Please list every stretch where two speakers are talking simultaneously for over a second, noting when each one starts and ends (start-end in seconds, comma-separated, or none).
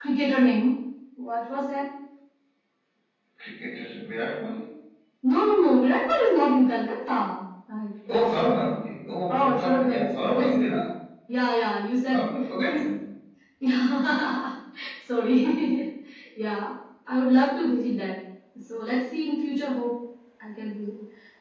9.3-10.8